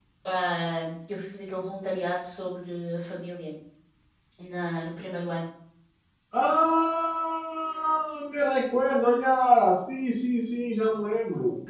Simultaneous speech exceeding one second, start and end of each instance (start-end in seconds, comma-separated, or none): none